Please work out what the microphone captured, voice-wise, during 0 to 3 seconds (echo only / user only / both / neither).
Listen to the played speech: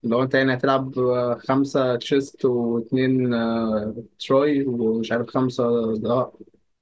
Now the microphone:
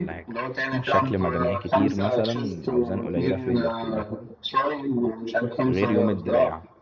both